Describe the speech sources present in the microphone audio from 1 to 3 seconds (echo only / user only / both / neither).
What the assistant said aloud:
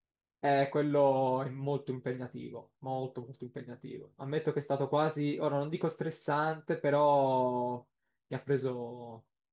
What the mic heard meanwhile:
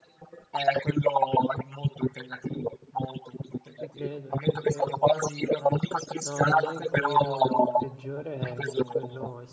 echo only